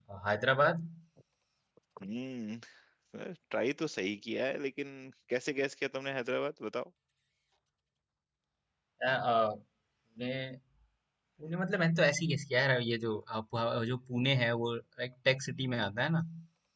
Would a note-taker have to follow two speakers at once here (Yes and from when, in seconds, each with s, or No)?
No